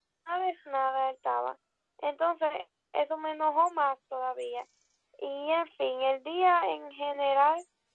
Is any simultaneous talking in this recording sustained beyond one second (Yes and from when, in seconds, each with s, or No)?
No